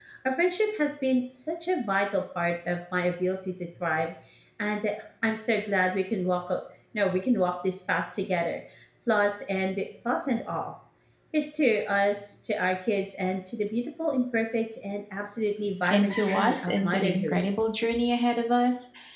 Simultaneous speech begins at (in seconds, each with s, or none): 15.8 s